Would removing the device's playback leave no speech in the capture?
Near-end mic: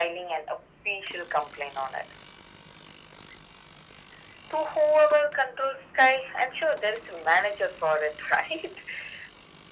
Yes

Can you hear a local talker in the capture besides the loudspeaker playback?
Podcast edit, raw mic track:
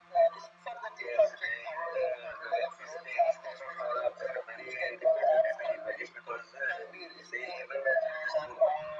No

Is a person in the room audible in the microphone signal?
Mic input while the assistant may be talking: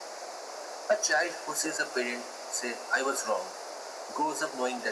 No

